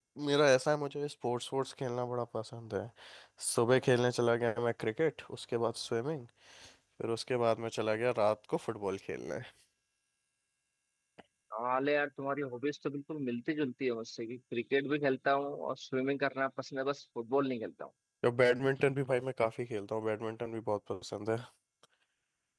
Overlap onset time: none

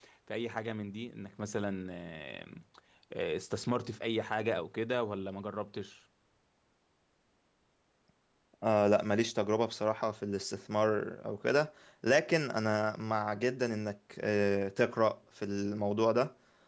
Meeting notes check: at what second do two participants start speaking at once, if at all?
none

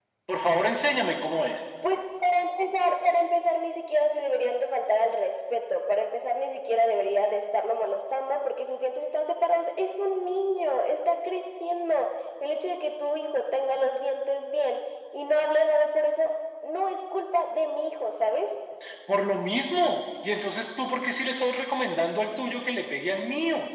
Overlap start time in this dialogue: none

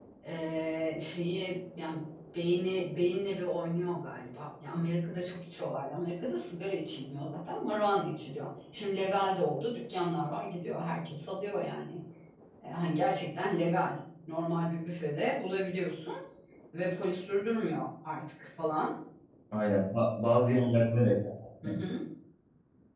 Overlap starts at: none

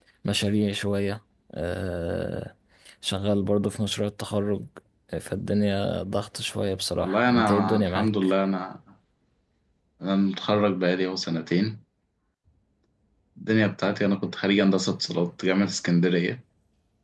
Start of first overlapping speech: 7 s

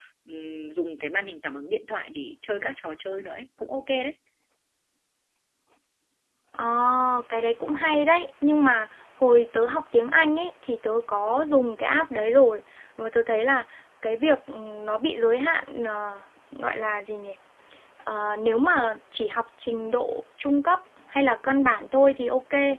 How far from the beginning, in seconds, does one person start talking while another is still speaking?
none

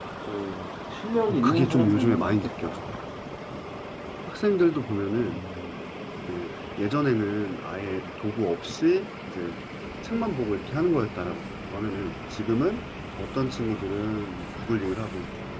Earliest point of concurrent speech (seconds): 1 s

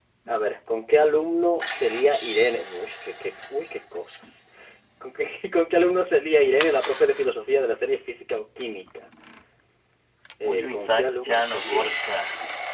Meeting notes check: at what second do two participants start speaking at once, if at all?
10 s

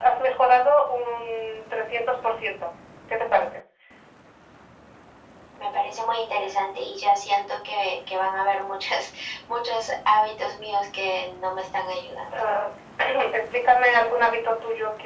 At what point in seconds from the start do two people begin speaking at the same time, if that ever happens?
none

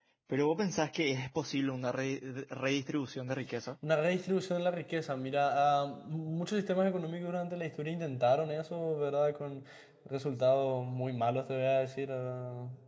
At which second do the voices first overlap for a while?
none

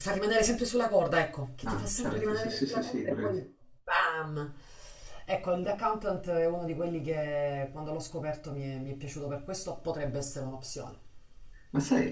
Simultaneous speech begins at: 2 s

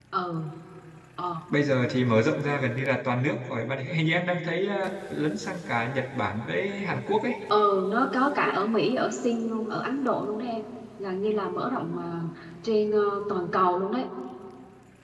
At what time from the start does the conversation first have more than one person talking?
none

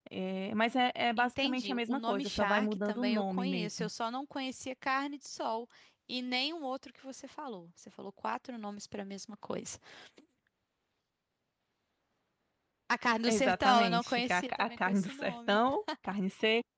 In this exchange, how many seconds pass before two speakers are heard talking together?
1 s

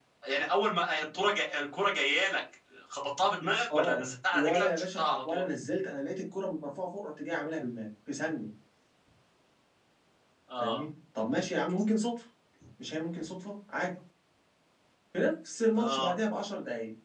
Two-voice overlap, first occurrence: 4 s

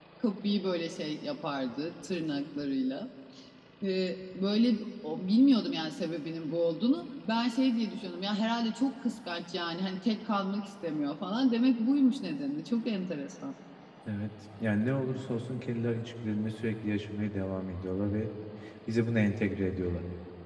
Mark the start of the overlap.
none

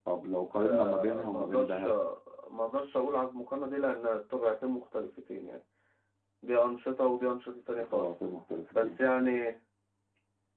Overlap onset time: 1 s

